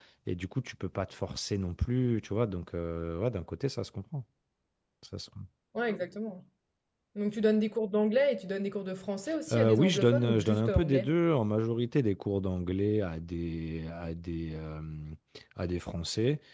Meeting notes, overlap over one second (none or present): present